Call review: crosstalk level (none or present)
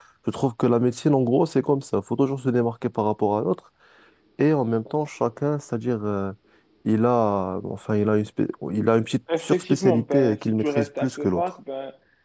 present